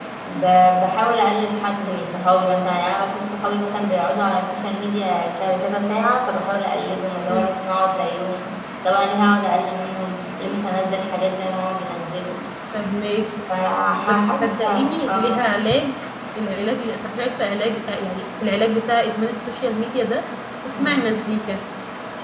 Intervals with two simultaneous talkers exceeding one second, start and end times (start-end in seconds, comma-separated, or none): 14.0-15.5